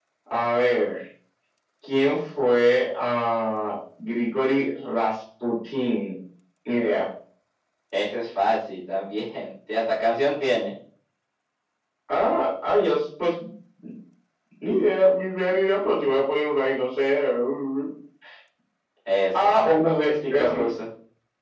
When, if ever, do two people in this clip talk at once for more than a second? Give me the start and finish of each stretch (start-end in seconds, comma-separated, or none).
19.4-20.6